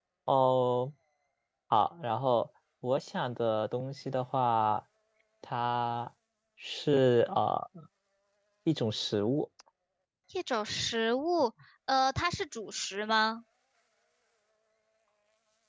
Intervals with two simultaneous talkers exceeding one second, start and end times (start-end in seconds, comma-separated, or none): none